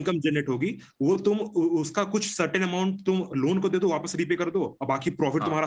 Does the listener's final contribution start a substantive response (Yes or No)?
No